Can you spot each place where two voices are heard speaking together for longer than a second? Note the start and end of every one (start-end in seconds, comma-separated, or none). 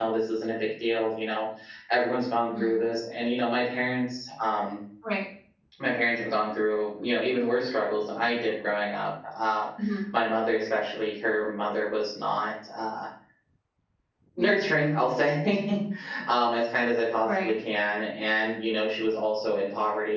none